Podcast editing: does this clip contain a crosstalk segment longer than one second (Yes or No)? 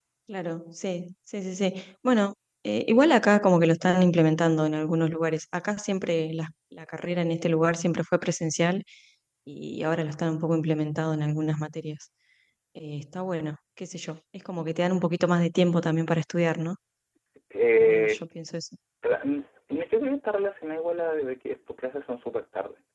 No